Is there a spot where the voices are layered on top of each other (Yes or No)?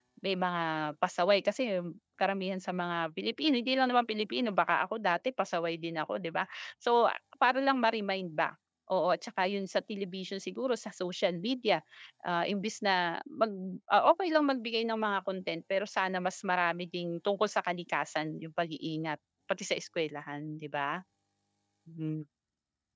No